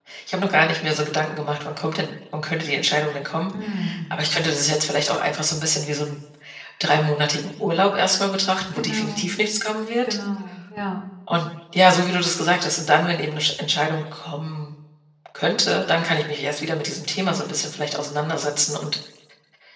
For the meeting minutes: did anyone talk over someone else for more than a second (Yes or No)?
No